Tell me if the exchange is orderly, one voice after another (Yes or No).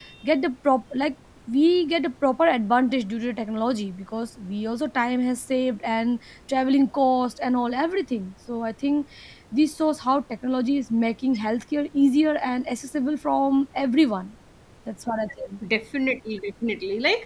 Yes